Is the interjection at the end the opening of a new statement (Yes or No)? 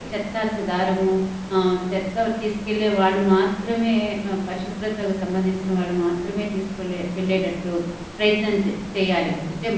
No